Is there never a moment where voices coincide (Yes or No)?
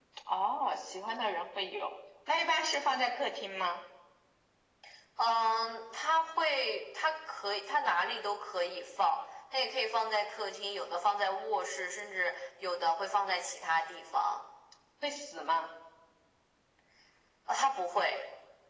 Yes